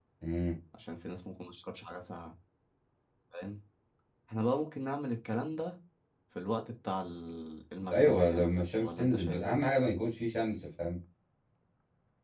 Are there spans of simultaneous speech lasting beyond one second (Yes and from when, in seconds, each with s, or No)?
Yes, from 7.9 s